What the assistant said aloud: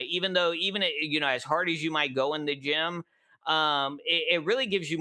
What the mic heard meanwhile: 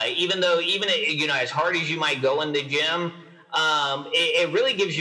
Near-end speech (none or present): none